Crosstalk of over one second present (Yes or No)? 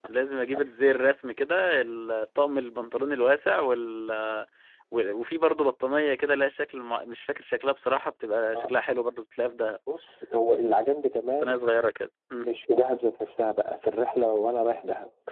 No